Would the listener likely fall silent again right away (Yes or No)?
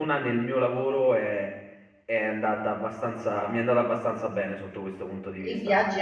No